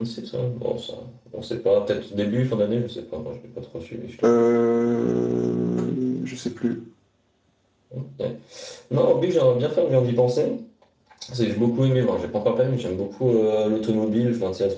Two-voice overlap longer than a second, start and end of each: none

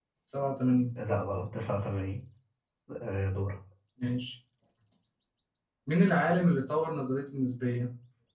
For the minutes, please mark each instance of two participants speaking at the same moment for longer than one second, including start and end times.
none

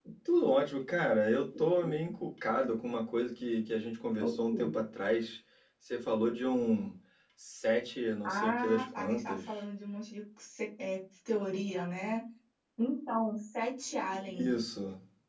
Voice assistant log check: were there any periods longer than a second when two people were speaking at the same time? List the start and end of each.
8.2-9.6

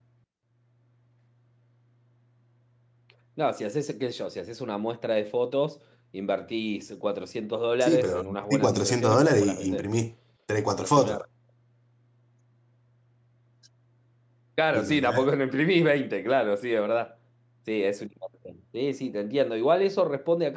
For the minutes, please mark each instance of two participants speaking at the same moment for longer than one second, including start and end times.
7.8-9.9

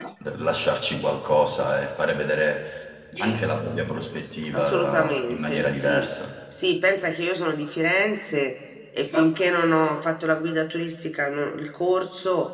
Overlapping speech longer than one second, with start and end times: 4.5-6.1

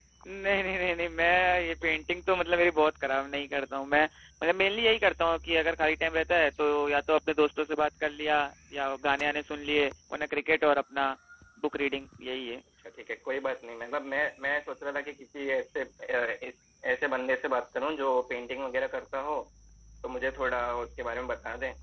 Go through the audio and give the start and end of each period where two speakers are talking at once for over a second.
none

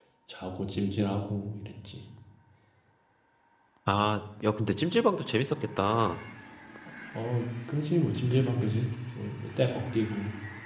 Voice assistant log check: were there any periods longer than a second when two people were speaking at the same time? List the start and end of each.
none

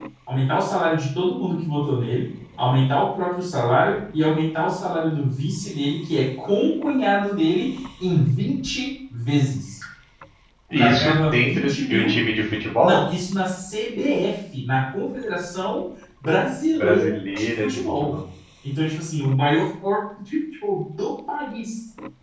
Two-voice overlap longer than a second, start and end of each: 10.7-12.2, 16.7-18.1

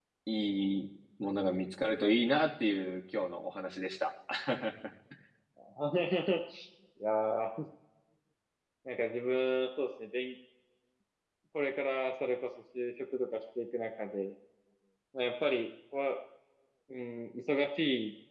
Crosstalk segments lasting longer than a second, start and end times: none

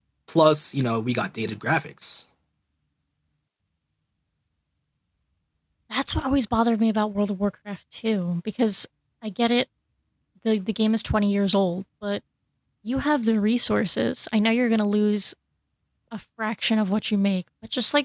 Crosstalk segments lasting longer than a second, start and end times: none

